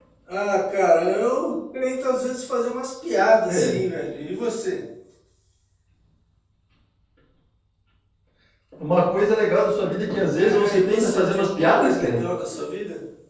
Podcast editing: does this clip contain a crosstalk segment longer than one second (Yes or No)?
Yes